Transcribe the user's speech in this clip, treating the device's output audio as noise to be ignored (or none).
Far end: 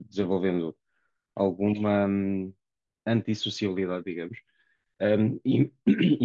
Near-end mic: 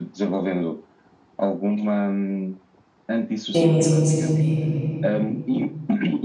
sim, sim, sim, sim.